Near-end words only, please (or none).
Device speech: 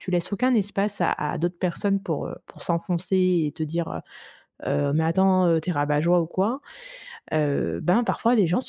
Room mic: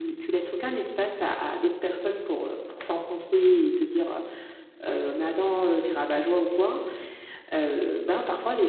none